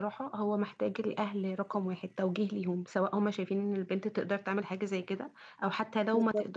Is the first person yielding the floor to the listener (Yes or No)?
No